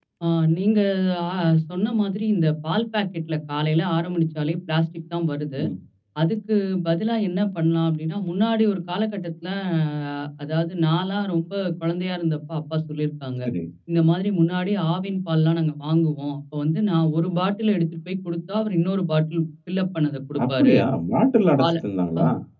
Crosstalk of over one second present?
No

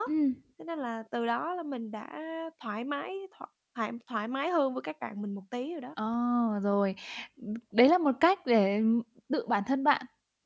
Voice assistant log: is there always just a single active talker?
Yes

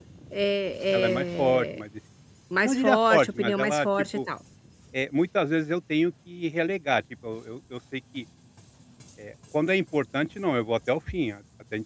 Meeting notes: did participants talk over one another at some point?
Yes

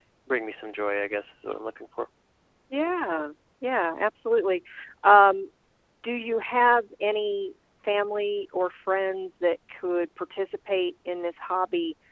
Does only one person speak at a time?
Yes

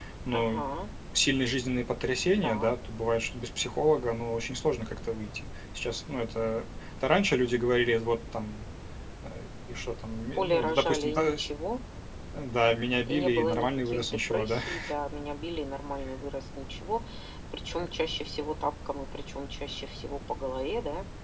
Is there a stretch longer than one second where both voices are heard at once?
Yes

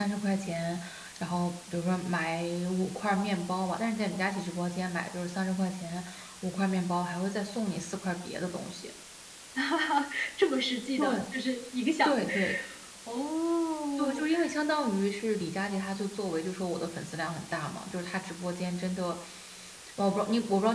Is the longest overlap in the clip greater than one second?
No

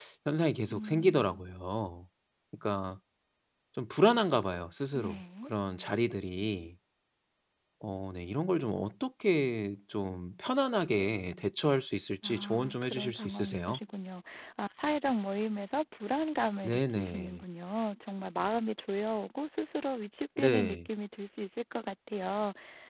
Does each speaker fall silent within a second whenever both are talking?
No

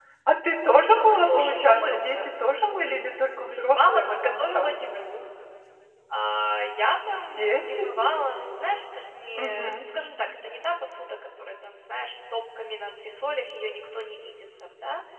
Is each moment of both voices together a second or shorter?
No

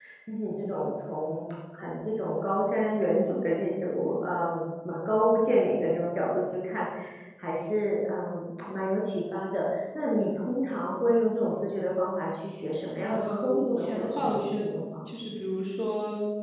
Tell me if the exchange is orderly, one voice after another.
No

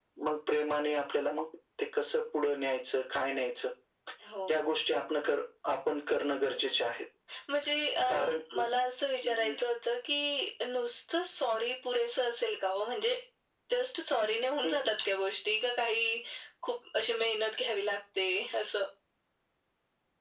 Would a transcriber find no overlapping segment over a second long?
Yes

